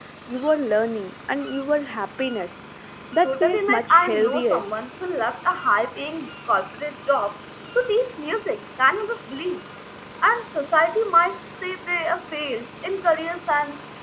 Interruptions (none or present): present